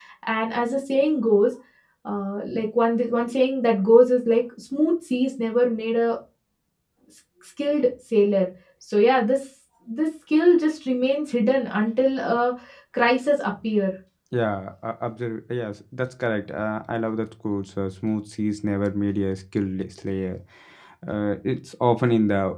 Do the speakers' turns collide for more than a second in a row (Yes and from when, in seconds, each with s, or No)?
No